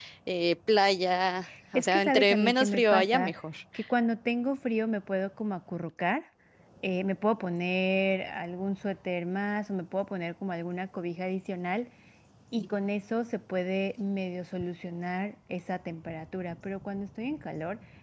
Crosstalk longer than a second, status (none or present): present